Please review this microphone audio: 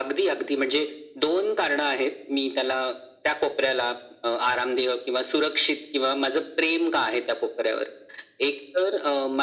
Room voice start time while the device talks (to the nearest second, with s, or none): none